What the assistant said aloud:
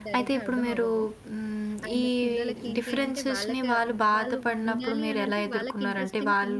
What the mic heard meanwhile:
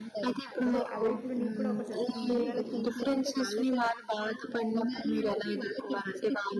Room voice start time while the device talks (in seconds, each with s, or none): 0.7 s